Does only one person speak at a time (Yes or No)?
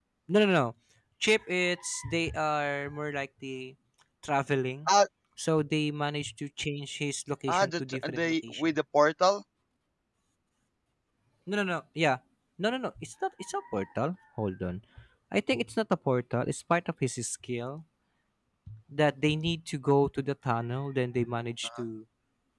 No